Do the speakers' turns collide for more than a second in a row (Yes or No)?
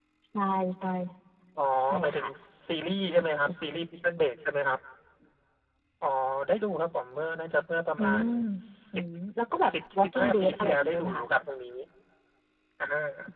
Yes